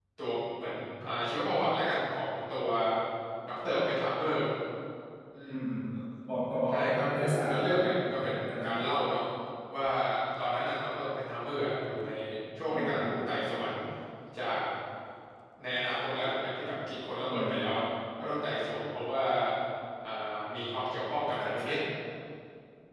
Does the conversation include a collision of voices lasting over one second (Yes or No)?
Yes